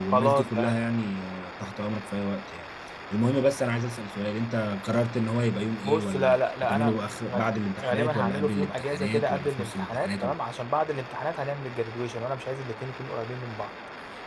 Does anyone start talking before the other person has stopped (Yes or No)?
Yes